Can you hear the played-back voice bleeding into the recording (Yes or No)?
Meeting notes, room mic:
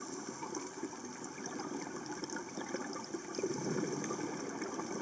No